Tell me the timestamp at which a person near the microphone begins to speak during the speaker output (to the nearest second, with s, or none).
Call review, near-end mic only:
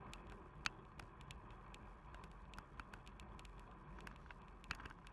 none